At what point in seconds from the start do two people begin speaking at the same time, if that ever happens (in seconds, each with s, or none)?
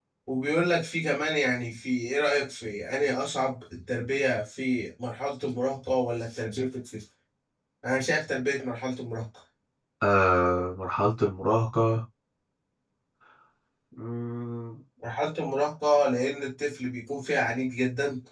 none